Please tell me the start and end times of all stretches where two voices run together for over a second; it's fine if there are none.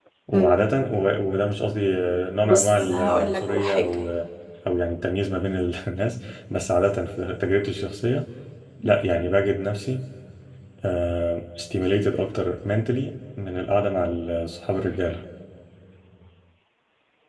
2.4-3.9

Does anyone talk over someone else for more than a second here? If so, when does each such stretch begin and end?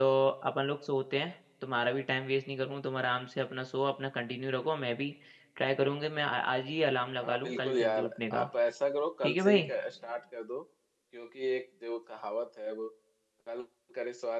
7.2-8.5

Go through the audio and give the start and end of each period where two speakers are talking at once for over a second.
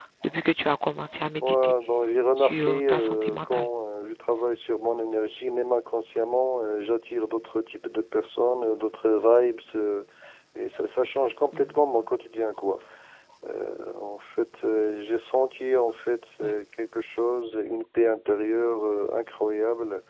2.4-3.7

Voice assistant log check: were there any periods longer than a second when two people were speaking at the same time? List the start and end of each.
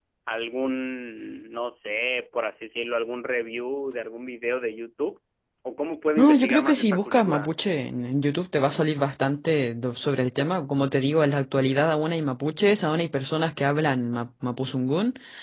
6.2-7.5

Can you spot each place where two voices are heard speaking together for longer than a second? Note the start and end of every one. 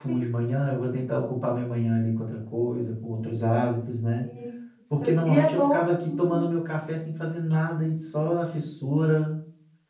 5.0-6.6

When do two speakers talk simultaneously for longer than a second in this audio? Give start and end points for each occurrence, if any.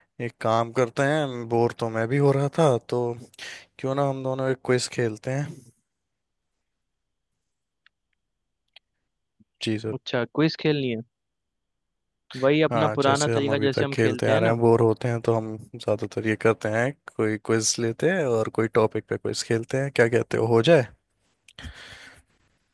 12.7-14.6

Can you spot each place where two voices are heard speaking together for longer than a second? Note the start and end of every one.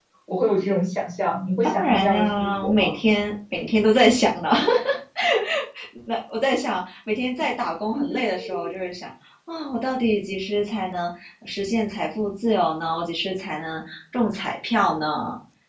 1.6-3.0

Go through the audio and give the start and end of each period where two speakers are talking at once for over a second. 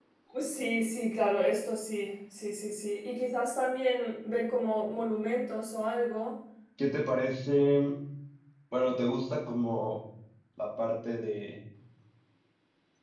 none

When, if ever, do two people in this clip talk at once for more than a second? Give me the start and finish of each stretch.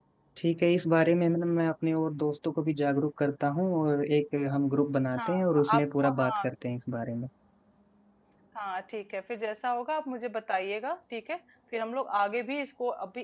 5.2-6.4

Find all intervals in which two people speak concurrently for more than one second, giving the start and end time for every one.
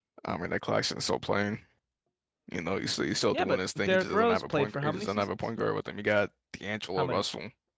3.3-5.3

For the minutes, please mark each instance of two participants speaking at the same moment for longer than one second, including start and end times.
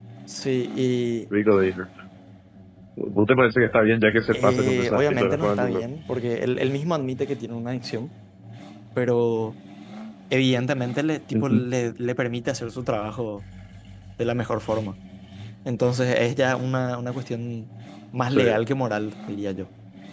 4.3-5.8

